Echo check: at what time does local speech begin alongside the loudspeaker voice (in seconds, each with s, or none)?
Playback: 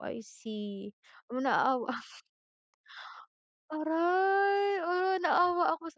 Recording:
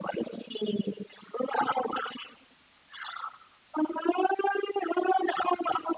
none